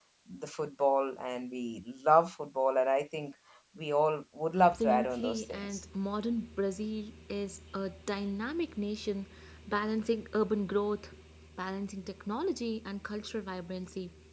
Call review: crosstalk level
present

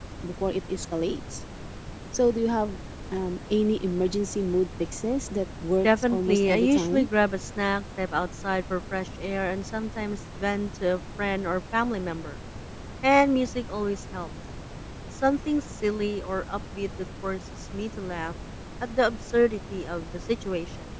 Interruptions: present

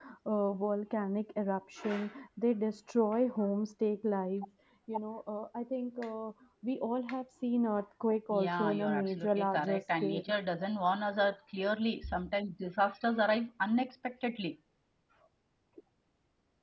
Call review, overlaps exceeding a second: present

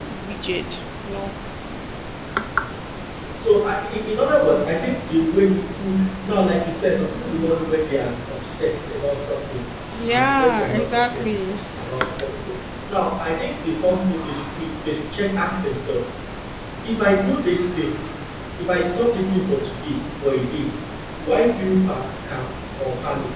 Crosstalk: present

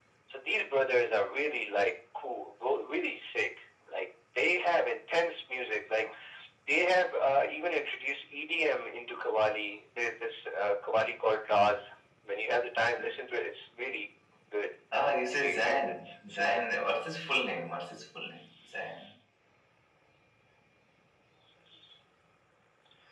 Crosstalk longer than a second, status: present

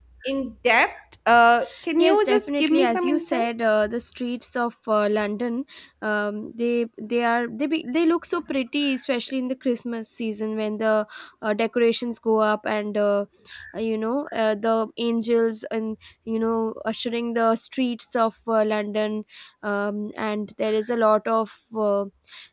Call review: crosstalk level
present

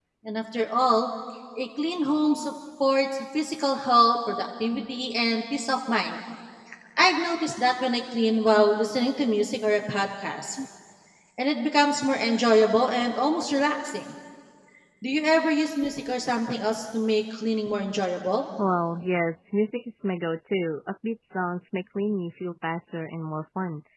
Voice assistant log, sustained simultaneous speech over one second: none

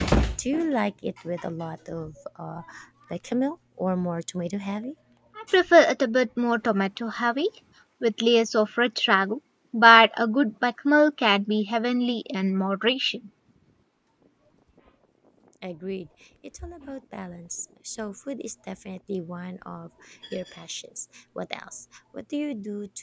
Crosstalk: none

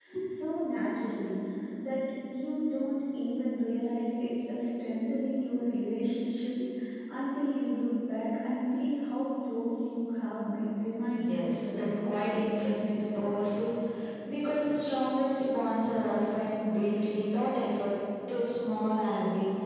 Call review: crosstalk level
present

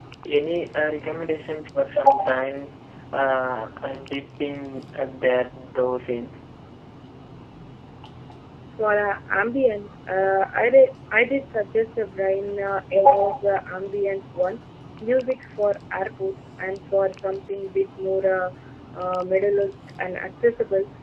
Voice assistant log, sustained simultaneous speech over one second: none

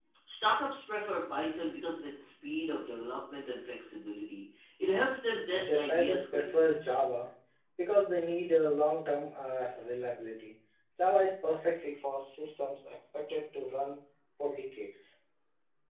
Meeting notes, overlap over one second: present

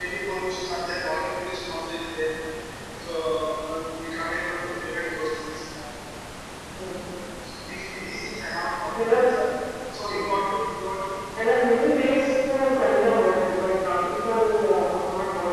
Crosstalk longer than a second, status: none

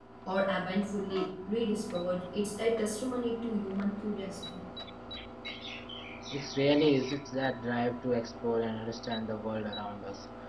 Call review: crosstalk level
none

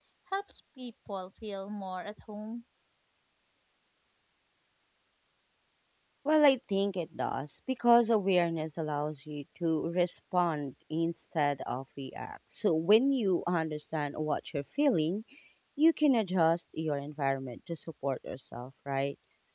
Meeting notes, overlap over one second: none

